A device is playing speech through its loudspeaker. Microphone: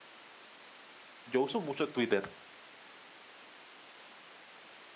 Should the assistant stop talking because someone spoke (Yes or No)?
Yes